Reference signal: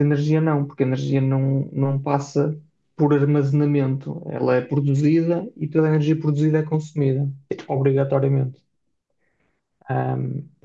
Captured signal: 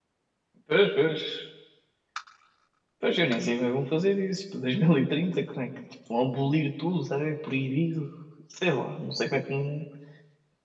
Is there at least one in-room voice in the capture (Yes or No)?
Yes